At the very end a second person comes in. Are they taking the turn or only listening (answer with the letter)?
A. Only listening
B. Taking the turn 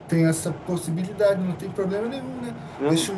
A